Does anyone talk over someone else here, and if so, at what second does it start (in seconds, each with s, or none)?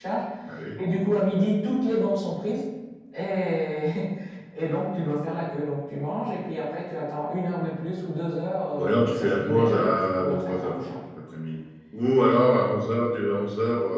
8.8 s